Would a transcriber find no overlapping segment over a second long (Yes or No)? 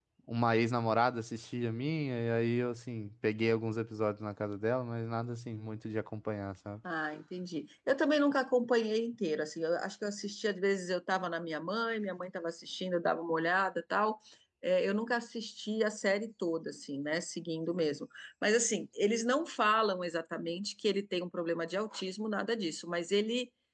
Yes